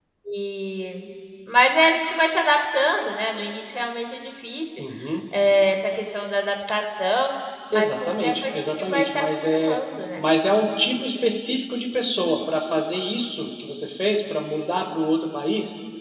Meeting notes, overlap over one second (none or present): present